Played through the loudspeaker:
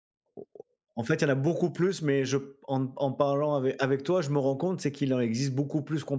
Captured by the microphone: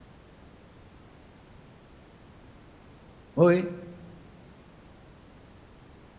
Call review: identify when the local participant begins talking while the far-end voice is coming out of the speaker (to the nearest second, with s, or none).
3 s